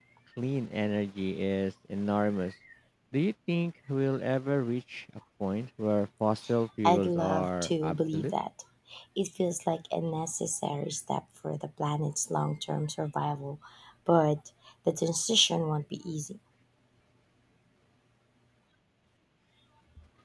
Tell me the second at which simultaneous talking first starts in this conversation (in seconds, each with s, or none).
6.9 s